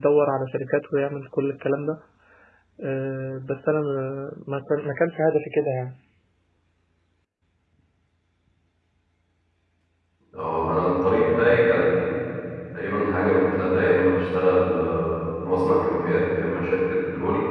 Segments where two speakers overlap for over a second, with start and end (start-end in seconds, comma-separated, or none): none